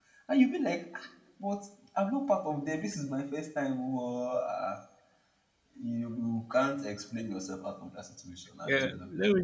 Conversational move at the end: taking over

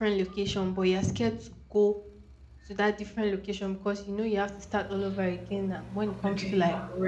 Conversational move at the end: listening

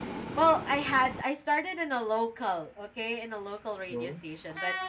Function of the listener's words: listening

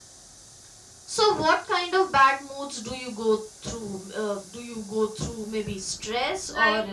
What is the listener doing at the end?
taking over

